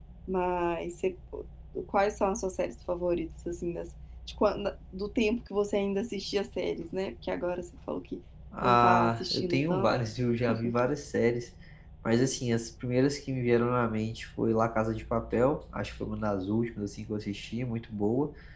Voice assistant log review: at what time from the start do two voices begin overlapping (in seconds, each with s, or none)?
8.6 s